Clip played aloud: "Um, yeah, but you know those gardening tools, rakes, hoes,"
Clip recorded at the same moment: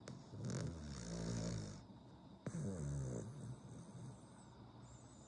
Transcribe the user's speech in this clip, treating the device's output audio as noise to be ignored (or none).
none